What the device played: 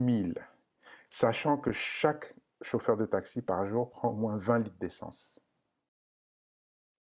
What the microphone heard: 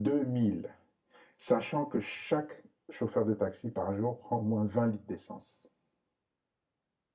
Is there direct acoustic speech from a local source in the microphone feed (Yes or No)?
No